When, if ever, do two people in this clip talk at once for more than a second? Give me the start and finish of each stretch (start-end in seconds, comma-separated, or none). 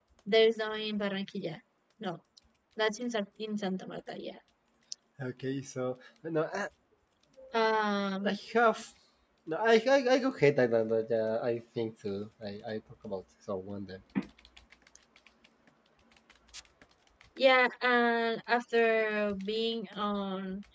none